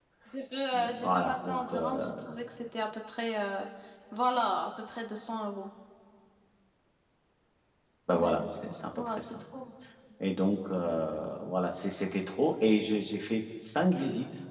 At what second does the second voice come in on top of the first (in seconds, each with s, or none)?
0.7 s